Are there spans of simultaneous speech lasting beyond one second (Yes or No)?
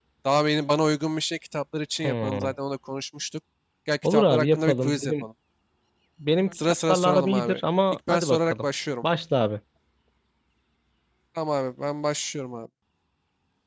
Yes